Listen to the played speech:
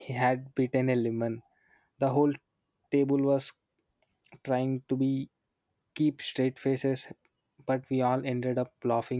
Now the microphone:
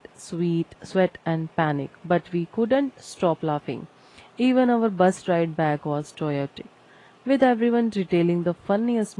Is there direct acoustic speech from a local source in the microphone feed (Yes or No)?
Yes